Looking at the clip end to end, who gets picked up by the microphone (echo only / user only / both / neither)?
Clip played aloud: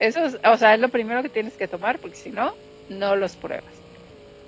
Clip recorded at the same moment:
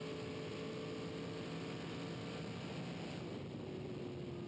neither